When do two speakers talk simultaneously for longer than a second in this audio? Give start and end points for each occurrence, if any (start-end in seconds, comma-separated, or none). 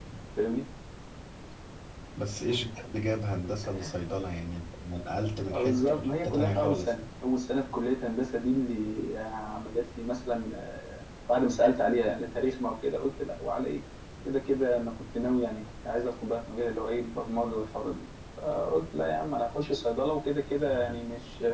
5.5-7.0